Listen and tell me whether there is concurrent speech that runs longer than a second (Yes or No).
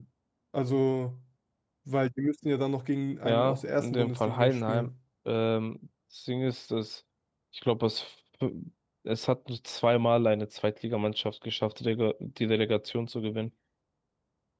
Yes